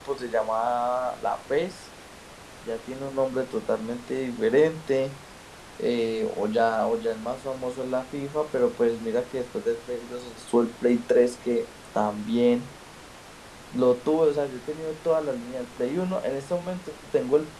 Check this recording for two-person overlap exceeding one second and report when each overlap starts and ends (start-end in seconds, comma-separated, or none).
none